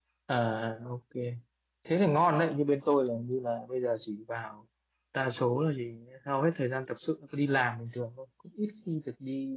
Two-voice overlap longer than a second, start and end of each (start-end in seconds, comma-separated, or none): none